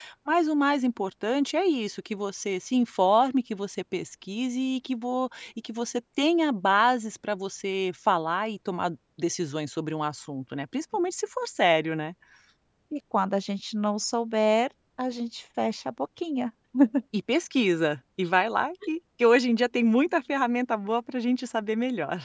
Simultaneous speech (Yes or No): No